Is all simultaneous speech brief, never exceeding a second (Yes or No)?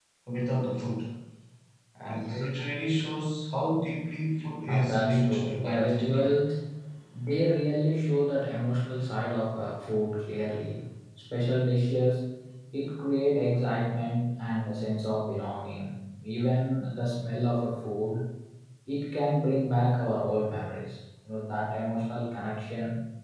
No